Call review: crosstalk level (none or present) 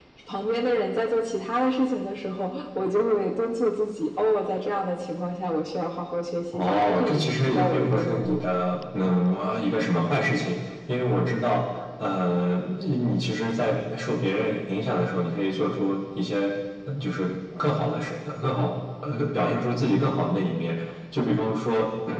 present